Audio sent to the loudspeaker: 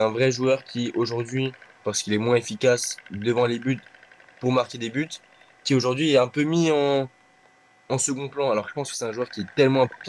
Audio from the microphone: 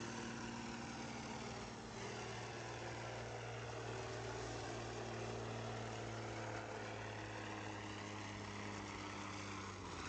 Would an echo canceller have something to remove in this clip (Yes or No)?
No